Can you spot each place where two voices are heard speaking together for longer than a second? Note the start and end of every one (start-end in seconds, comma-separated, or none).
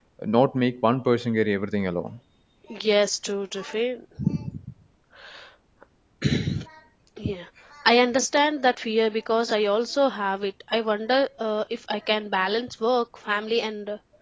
none